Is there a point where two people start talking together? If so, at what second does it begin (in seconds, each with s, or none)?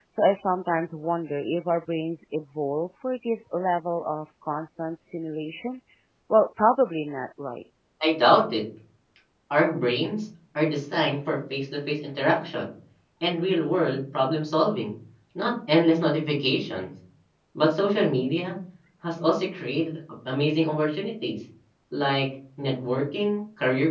none